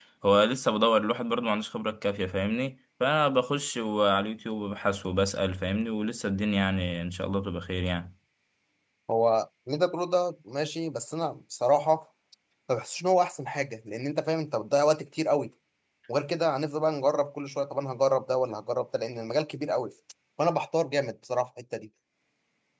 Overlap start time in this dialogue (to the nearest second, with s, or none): none